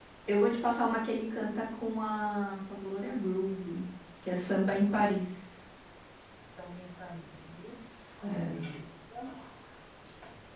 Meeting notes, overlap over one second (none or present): none